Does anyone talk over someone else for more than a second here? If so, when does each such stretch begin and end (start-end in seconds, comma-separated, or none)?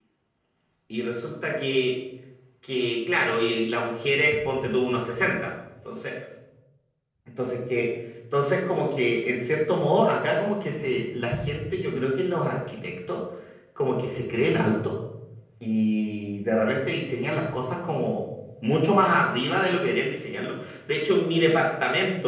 none